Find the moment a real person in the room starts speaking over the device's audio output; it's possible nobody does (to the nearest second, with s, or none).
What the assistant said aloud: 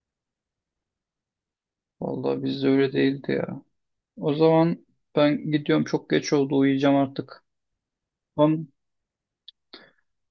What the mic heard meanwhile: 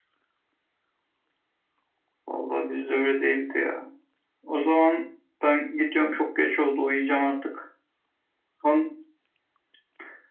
none